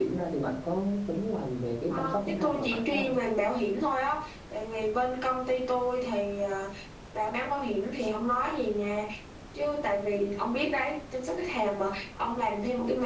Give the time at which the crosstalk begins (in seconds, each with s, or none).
1.9 s